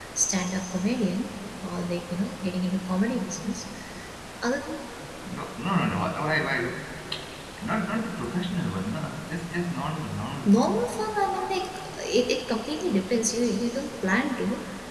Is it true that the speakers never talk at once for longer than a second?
Yes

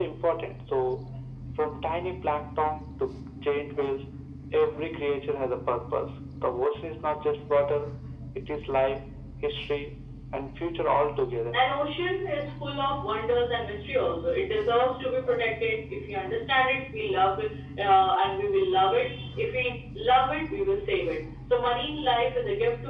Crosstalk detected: No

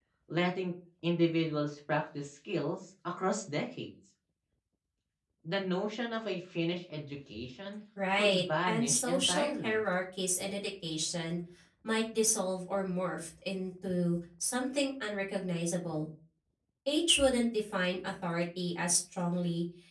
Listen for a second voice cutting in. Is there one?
Yes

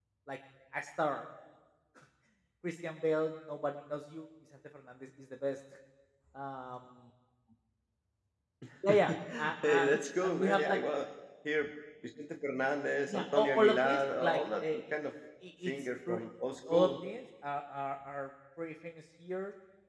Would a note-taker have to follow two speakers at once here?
Yes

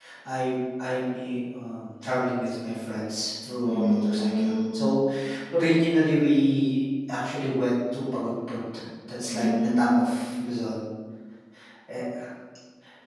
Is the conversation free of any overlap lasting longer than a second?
No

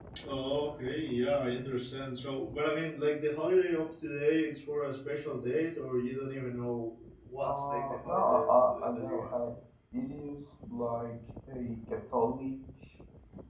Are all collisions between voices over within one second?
No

